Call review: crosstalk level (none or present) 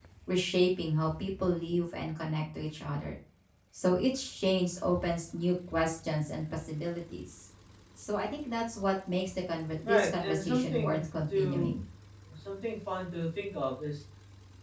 present